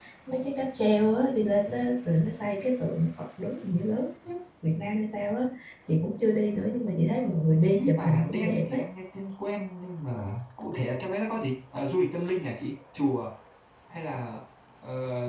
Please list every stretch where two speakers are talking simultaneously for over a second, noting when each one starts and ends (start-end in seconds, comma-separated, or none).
7.5-8.8